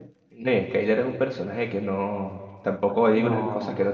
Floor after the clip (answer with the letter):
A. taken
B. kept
B